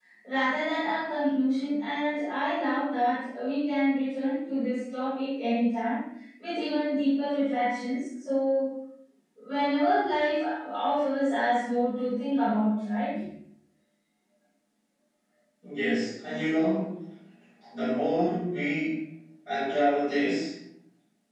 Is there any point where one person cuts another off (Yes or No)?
No